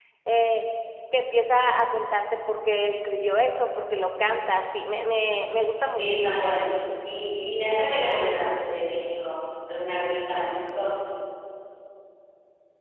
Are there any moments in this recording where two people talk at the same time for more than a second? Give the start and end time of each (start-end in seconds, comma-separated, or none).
none